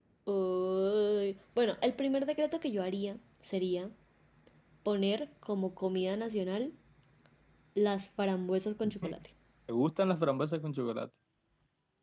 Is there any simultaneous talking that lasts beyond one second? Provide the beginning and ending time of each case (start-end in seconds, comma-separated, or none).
none